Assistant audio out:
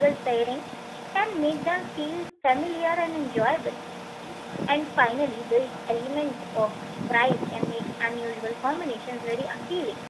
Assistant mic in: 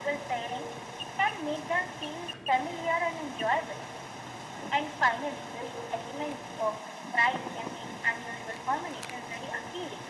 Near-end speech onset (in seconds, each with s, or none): none